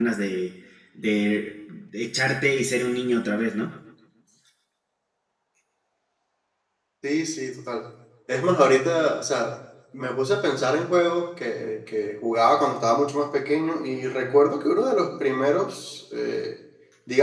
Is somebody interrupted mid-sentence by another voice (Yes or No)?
No